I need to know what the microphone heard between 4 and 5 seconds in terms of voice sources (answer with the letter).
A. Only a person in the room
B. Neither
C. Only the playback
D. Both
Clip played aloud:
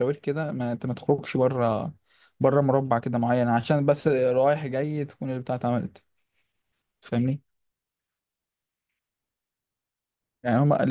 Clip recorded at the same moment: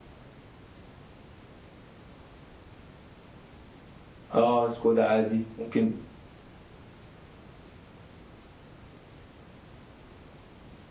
A